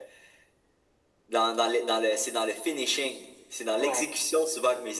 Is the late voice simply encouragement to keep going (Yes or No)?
Yes